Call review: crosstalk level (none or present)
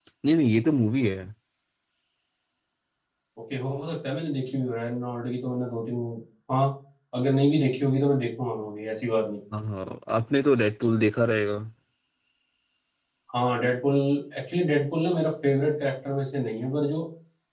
none